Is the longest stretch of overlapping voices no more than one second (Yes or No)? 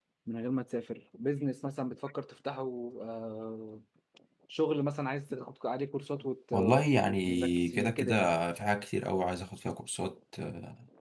No